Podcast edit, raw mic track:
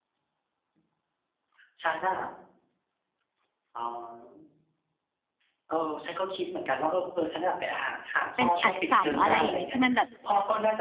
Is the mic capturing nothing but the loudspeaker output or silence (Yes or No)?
No